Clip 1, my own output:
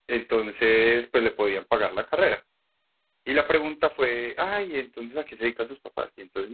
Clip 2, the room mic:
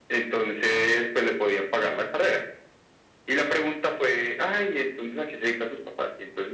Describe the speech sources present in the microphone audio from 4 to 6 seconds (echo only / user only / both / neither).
echo only